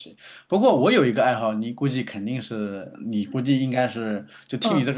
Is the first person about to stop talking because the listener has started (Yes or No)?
Yes